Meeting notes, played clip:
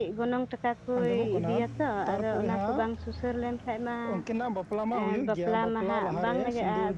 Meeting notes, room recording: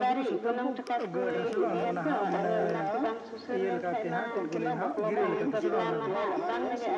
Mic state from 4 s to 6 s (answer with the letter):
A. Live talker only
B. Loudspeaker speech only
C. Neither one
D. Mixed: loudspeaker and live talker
D